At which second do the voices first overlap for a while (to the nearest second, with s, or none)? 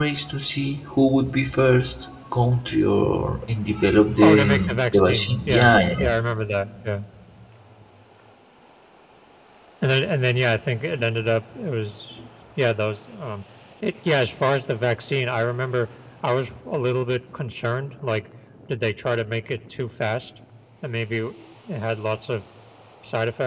4 s